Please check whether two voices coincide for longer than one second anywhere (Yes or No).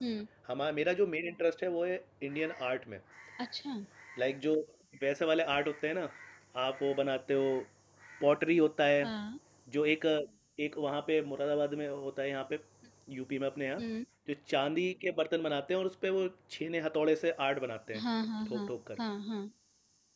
No